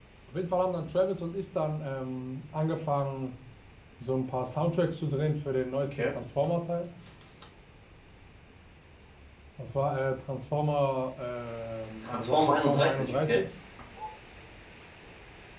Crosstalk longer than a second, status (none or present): present